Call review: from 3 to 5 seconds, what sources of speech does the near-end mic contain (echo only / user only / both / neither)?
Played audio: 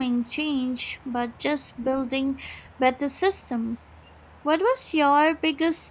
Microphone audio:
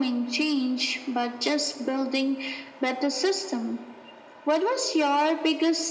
echo only